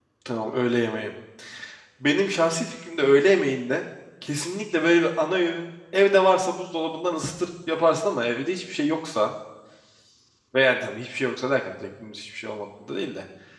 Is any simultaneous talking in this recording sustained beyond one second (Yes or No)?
No